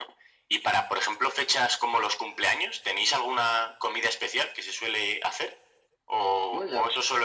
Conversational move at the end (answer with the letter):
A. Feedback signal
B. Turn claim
A